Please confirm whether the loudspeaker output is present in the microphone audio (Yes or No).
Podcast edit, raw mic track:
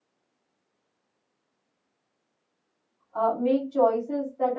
No